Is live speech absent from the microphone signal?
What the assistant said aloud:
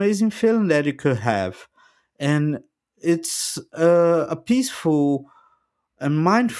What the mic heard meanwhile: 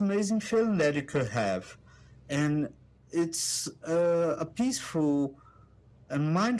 Yes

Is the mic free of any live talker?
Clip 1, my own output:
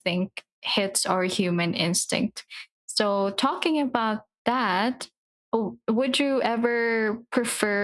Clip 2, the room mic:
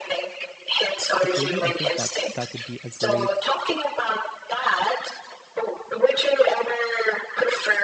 No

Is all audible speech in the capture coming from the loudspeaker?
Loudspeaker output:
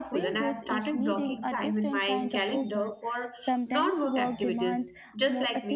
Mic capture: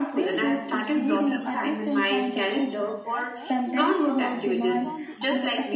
No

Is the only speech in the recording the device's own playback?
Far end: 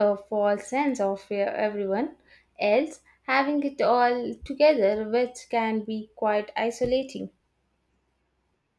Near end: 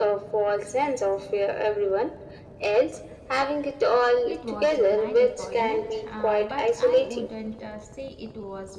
No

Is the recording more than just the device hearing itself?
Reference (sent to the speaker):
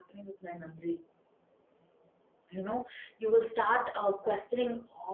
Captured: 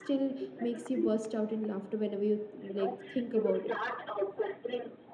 Yes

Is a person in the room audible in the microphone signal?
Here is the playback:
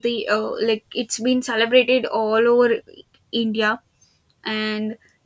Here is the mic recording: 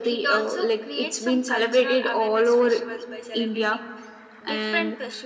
Yes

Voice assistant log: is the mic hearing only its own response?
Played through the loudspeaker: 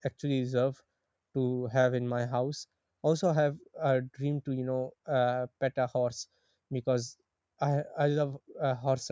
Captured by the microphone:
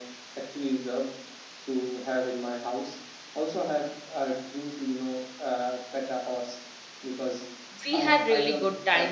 No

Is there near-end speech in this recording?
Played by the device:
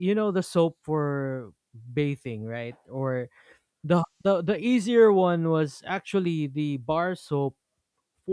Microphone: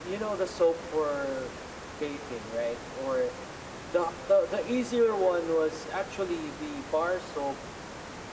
No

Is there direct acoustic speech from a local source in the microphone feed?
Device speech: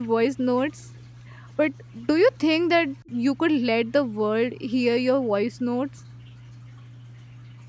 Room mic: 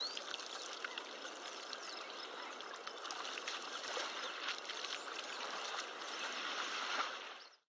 No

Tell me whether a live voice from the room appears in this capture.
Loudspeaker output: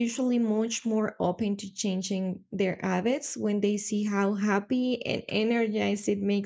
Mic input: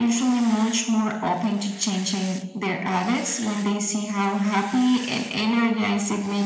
No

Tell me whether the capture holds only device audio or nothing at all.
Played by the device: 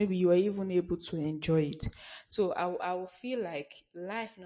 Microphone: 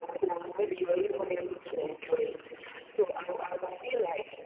Yes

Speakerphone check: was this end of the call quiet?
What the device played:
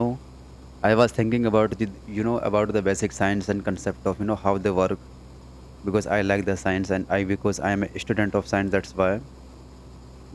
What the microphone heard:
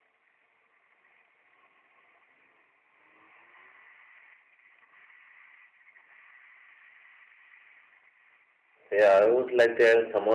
No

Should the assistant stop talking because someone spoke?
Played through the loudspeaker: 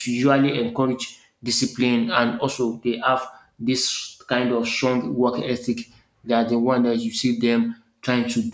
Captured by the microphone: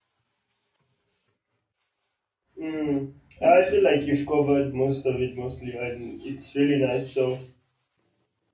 Yes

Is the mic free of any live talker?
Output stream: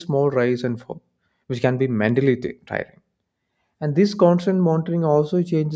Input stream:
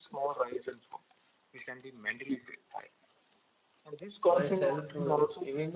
No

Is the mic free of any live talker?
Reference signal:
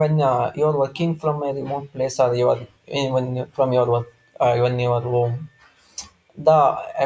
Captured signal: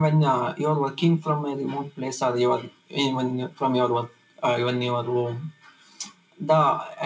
Yes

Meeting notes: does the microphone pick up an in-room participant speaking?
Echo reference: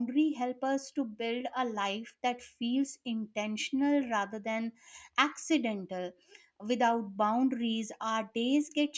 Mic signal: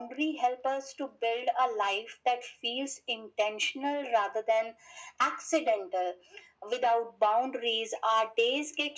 No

